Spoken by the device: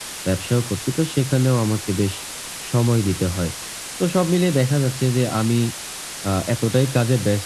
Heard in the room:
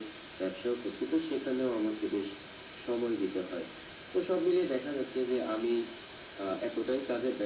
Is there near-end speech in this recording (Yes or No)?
No